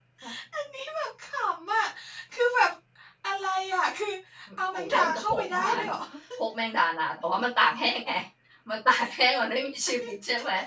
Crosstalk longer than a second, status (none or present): present